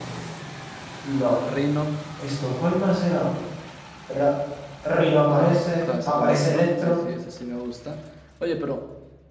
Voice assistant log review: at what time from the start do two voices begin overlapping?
5.3 s

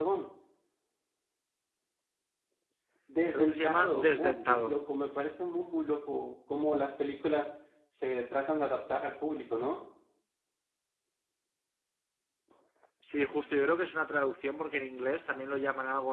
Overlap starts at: 3.3 s

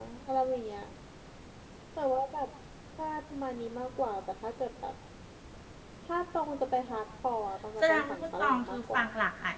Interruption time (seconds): 7.8 s

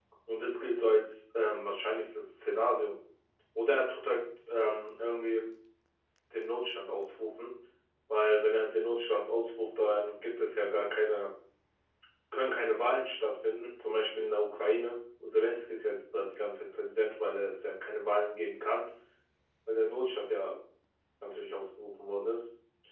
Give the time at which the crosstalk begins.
none

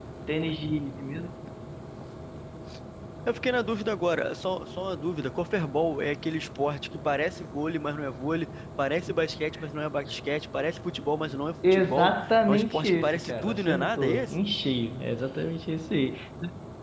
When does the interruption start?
11.6 s

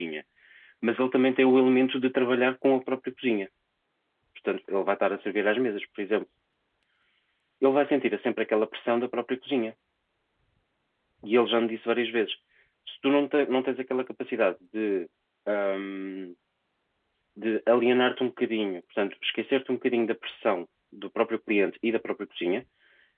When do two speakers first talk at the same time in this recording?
none

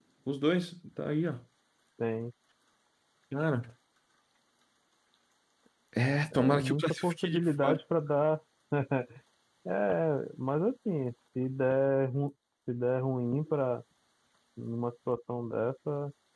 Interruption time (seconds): 6.3 s

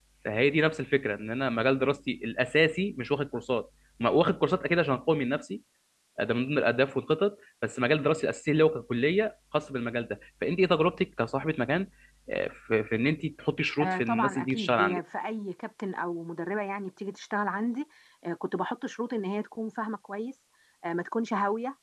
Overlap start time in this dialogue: 13.8 s

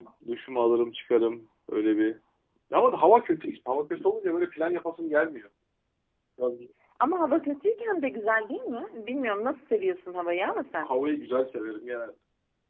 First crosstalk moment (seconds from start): none

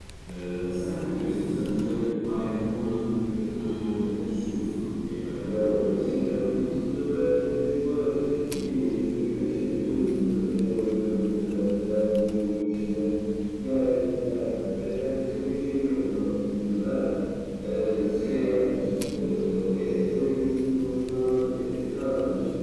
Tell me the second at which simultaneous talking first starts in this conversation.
5.4 s

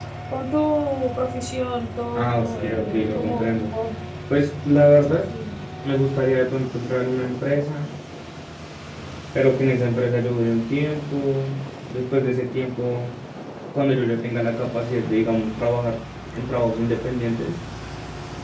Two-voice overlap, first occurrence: 2.2 s

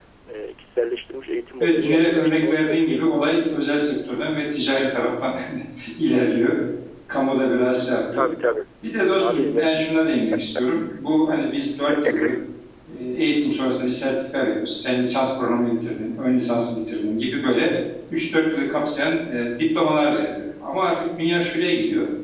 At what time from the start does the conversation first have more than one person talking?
1.6 s

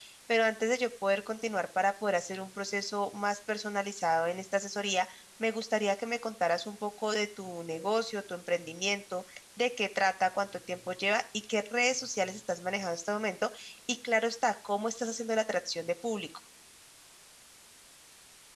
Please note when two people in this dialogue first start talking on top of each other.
none

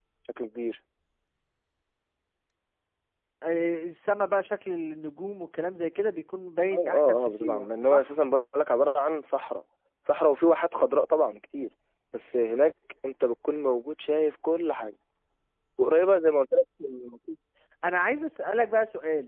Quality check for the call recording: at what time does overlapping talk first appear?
6.7 s

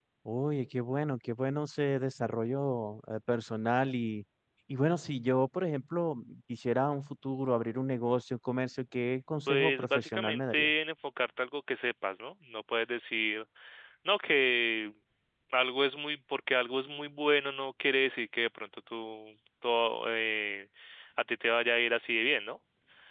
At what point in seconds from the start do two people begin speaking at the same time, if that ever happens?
9.5 s

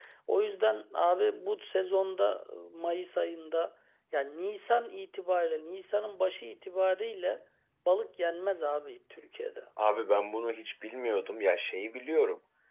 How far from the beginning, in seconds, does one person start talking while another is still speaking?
none

